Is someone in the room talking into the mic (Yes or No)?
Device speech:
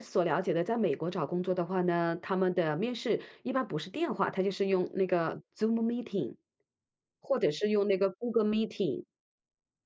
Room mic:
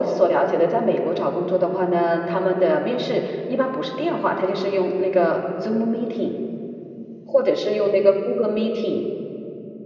No